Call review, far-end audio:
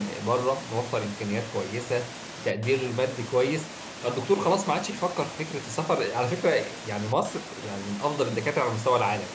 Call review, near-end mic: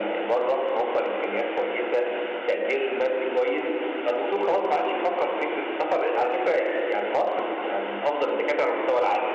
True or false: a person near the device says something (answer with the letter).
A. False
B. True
A